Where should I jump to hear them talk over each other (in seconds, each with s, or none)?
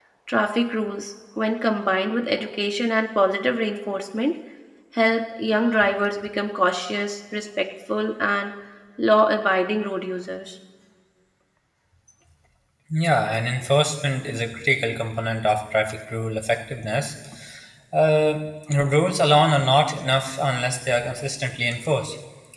none